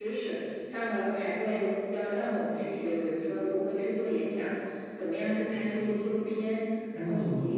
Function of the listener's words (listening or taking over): listening